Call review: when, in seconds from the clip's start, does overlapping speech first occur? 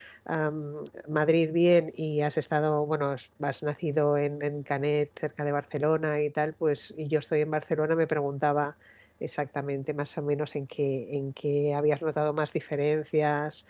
none

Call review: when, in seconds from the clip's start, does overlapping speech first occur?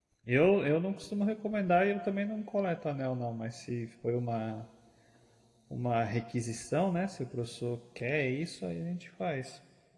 none

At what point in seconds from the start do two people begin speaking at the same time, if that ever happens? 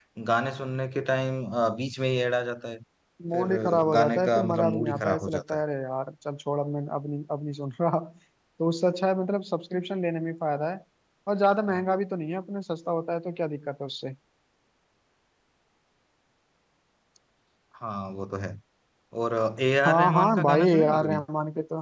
3 s

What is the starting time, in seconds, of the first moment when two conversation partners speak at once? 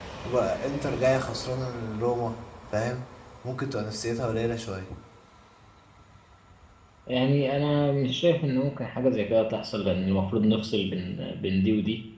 none

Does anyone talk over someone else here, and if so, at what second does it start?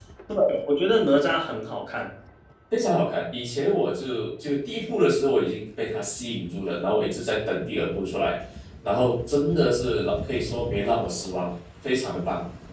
none

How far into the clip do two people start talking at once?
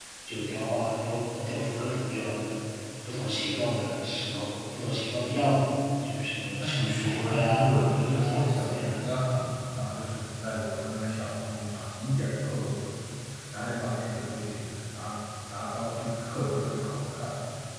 7 s

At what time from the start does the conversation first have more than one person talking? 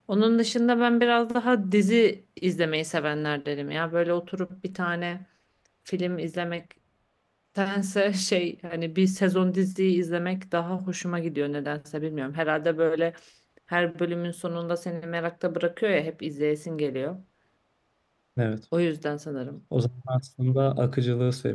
none

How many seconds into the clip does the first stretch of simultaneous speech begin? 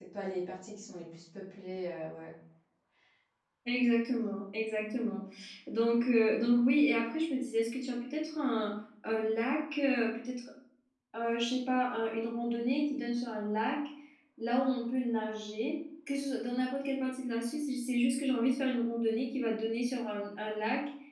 none

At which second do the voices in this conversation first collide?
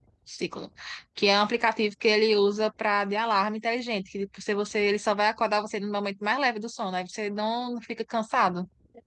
none

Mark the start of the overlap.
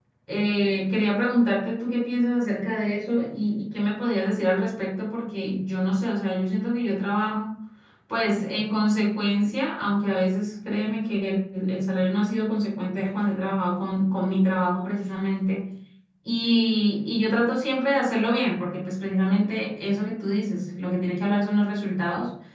none

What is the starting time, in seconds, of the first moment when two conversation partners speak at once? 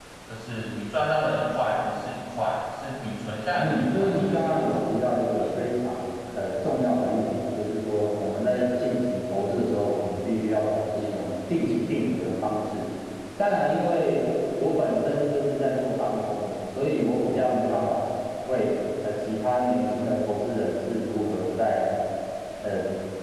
4 s

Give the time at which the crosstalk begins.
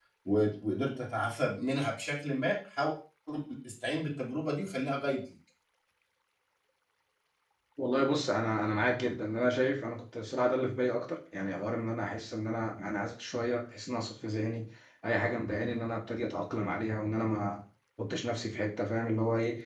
none

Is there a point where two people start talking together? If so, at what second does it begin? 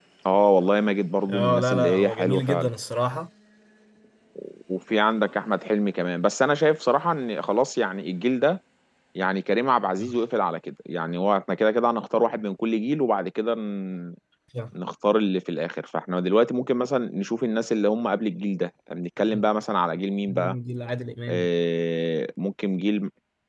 1 s

